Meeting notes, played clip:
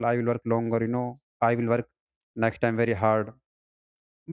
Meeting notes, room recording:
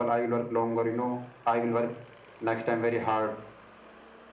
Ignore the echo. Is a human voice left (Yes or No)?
No